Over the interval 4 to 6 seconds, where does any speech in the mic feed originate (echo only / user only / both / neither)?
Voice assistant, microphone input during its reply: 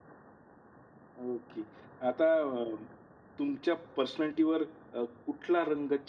user only